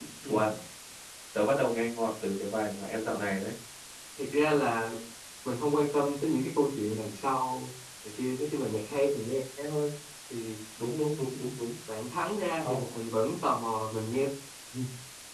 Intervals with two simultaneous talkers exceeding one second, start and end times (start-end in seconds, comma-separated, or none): none